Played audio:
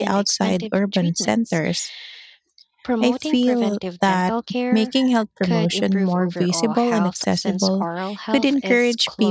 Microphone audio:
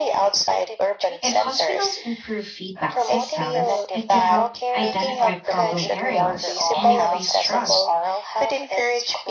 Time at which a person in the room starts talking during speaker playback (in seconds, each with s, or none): 1.2 s